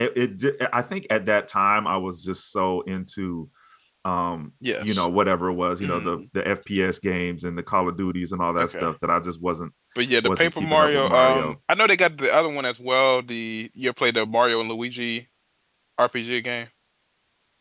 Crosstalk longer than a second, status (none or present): present